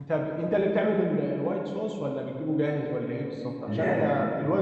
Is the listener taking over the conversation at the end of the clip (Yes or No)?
No